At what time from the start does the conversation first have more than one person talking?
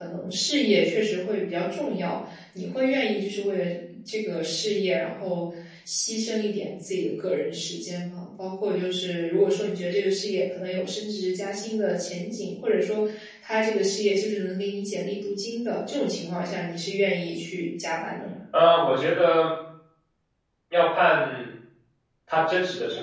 none

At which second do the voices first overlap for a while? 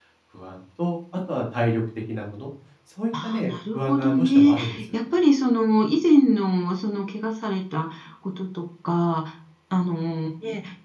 3.1 s

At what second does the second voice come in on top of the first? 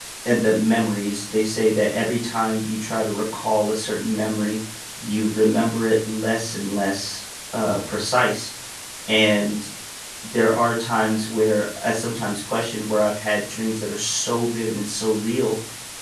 none

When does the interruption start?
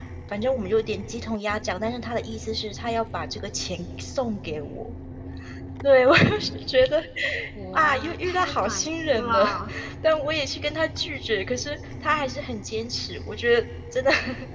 7.7 s

